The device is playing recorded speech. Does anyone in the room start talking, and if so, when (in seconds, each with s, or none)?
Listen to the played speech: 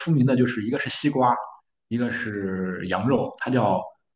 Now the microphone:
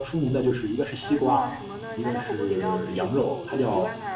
1.0 s